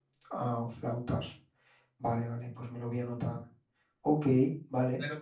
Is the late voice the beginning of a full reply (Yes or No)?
Yes